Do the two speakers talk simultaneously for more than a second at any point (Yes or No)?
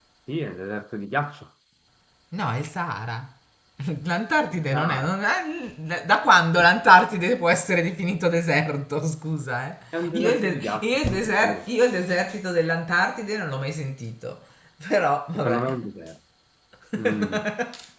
Yes